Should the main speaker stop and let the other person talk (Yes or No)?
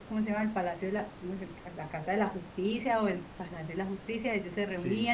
No